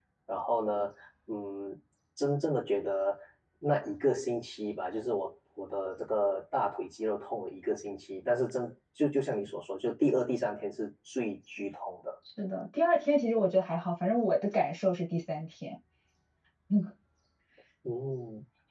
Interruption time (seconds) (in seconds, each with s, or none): none